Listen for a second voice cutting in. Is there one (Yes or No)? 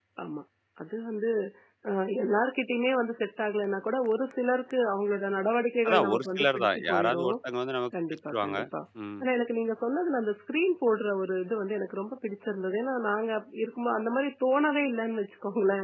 Yes